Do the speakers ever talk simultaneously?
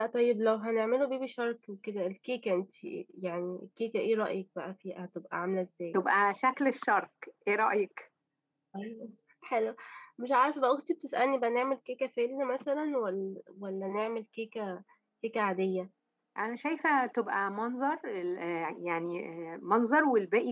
No

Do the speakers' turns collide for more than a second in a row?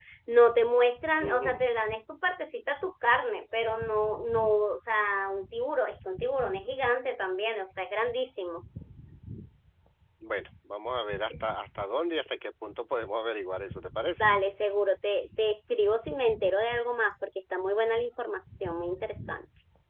No

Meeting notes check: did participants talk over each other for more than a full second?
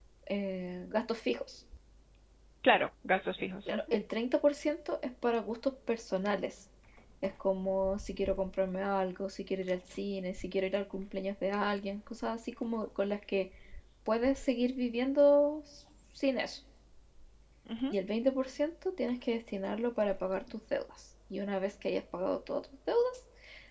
No

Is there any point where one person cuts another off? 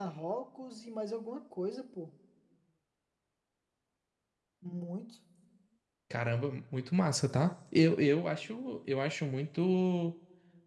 No

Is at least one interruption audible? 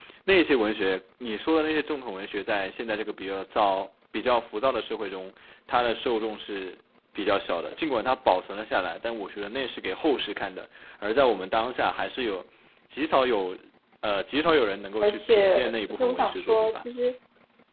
Yes, from 15.0 s

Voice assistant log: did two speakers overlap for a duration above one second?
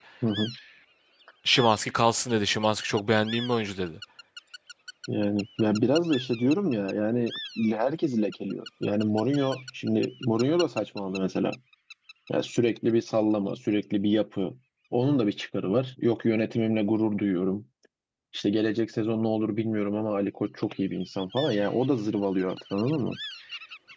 No

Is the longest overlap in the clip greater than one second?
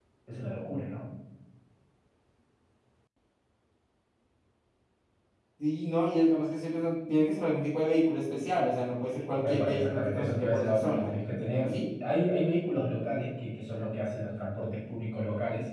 Yes, from 9.4 s

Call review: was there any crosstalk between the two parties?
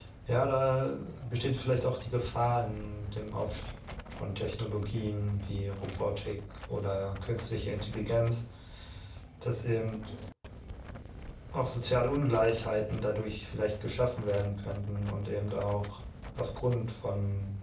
No

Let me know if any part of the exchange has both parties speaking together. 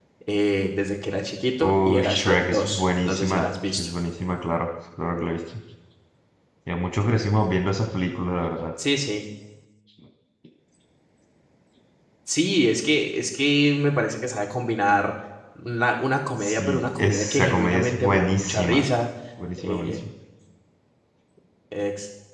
Yes, from 1.6 s

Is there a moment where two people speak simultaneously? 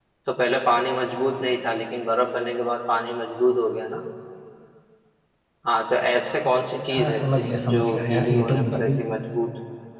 Yes, from 6.9 s

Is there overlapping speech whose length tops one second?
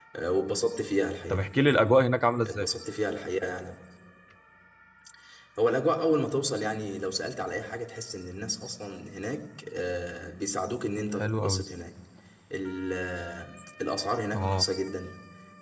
No

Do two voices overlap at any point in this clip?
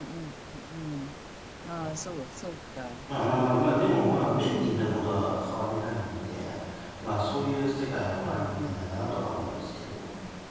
Yes, from 3.2 s

